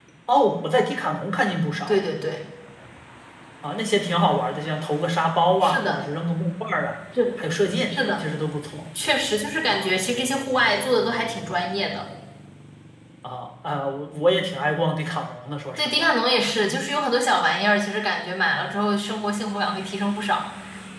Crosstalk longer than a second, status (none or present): none